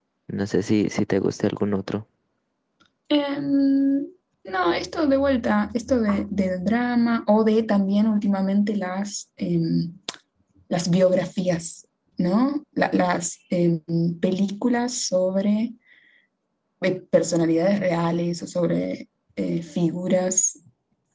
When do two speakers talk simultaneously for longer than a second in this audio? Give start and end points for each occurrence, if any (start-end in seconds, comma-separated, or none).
none